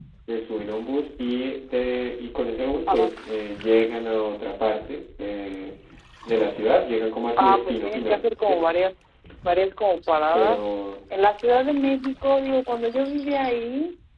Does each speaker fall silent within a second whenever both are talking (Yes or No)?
No